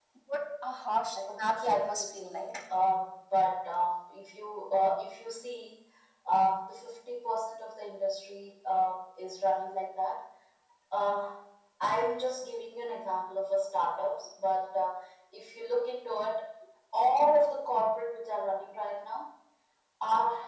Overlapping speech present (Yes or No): Yes